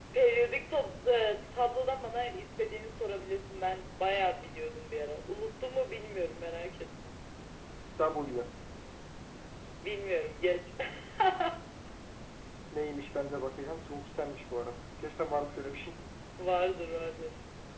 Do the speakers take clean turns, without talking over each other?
Yes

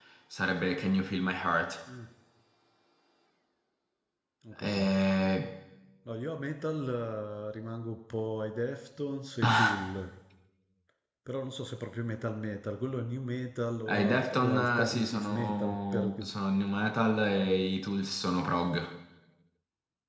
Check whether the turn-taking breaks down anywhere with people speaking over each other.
Yes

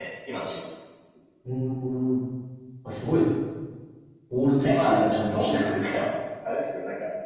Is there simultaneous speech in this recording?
Yes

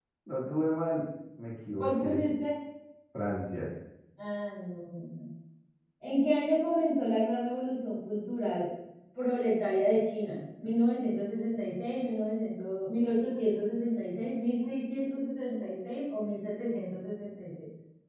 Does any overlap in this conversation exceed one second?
No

